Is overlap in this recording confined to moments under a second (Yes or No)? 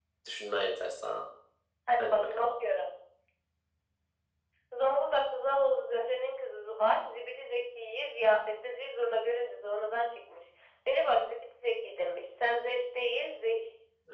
Yes